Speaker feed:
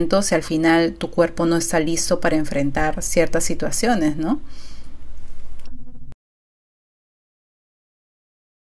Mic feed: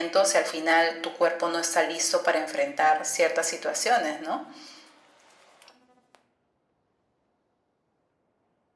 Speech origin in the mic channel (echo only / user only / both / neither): echo only